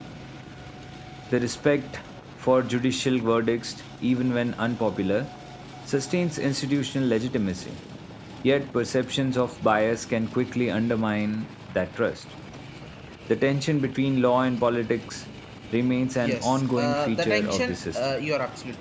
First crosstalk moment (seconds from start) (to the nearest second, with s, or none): 16 s